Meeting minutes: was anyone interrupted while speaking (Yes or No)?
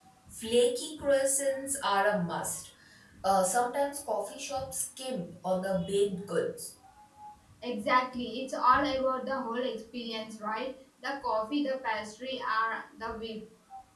No